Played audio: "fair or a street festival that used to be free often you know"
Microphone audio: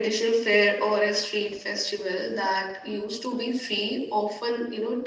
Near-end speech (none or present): none